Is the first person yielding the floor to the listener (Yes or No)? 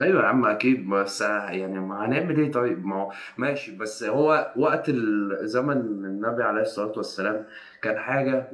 No